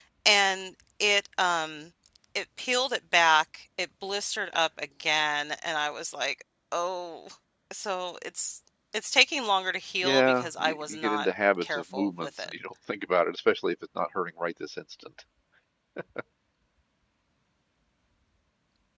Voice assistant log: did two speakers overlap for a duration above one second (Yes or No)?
Yes